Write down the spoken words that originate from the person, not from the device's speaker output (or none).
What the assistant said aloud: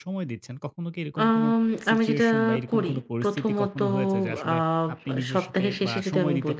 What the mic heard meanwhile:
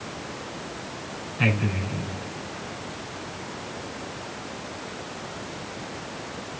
একদমই, একদমই।